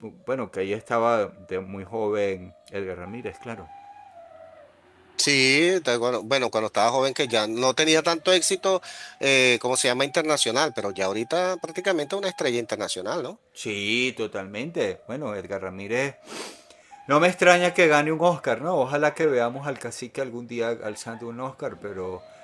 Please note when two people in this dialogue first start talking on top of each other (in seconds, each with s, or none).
none